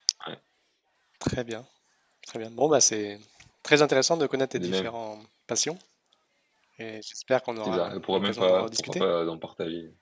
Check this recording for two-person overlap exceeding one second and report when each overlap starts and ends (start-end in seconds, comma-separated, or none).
7.6-9.0